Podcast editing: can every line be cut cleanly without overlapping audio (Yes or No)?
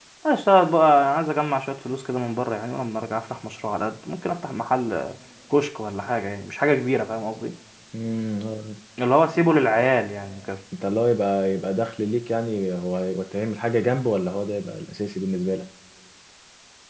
Yes